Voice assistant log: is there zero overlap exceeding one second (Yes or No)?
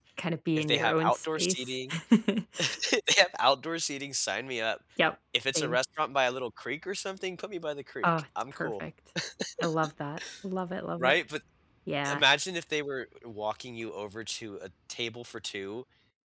No